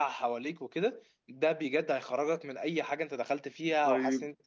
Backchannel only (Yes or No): No